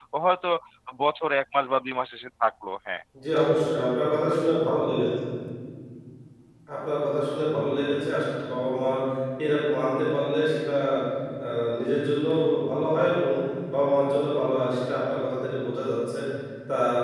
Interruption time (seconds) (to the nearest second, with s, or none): none